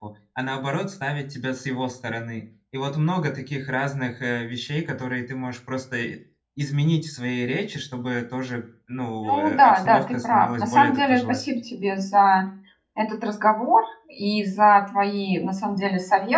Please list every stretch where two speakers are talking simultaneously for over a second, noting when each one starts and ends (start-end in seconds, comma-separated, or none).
9.2-11.4